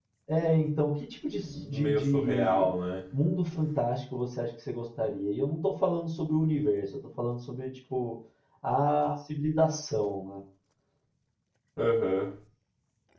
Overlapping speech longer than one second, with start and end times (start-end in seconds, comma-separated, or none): 1.4-2.7